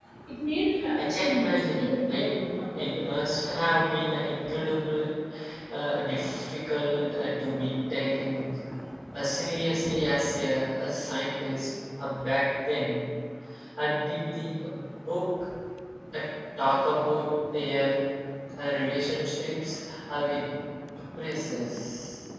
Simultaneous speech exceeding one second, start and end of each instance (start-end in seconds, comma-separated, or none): 0.9-2.3